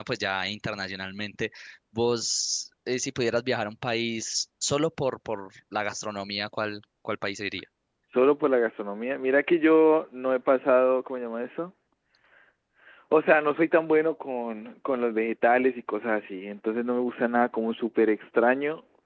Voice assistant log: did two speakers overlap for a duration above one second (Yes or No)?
No